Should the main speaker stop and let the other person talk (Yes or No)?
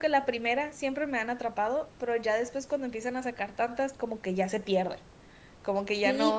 Yes